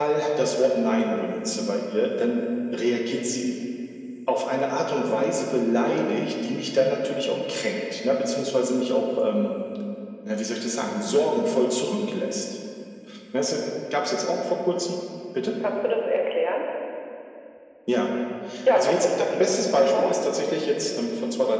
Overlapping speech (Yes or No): Yes